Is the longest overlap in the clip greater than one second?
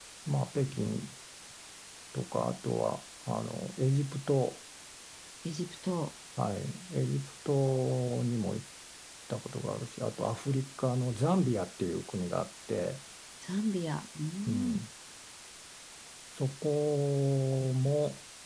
No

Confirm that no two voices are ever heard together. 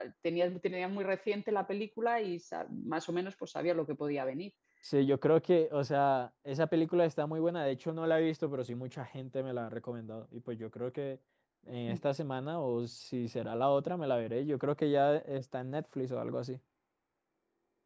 Yes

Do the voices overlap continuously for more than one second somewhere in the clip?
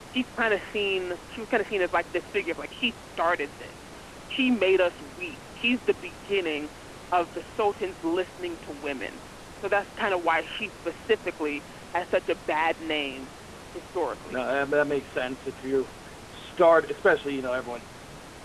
No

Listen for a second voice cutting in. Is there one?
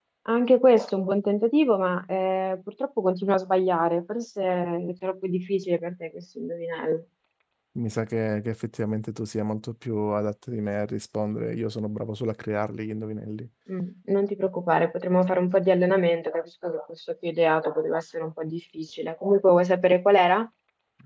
No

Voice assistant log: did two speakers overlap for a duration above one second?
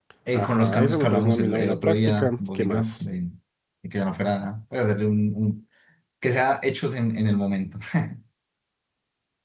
Yes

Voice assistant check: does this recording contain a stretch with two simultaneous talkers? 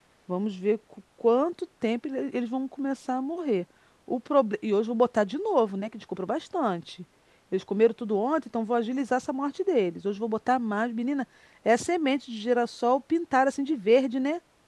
No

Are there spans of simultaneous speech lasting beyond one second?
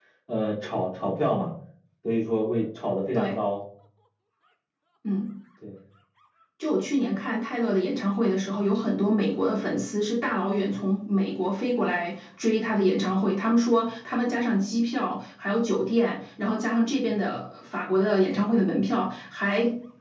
No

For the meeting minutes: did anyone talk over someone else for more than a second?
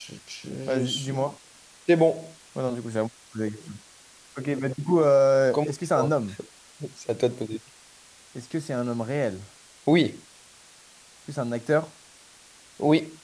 No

